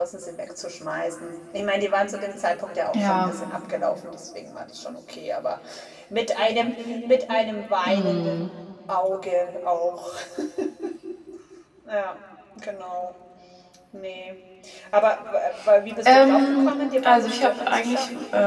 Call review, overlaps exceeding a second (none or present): present